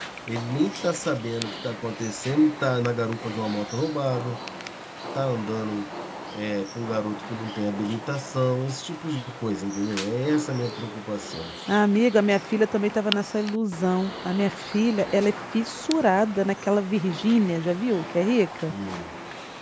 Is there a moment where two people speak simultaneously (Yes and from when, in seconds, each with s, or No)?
No